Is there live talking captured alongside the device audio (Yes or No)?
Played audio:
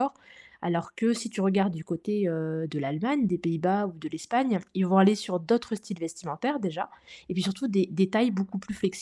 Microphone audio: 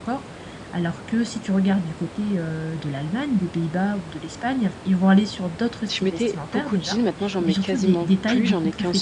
Yes